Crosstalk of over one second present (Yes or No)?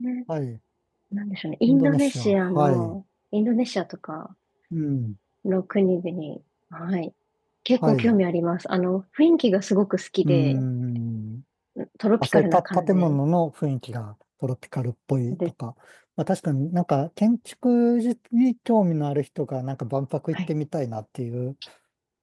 Yes